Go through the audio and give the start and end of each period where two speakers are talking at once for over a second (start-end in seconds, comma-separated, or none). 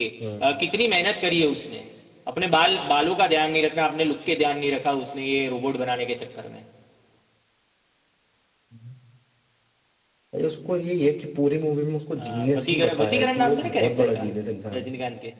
12.2-14.2